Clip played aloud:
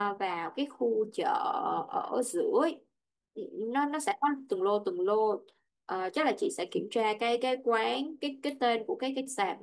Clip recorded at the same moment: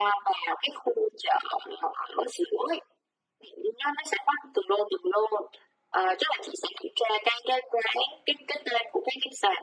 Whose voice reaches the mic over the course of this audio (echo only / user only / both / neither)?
echo only